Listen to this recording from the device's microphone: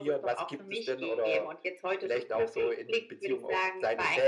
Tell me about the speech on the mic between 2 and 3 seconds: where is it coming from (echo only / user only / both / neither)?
echo only